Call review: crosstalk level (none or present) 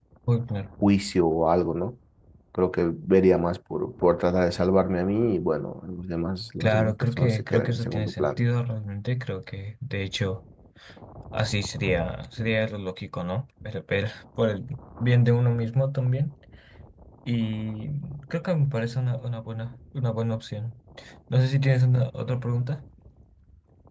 present